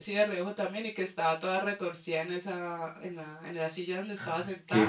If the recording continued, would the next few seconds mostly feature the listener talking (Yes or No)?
No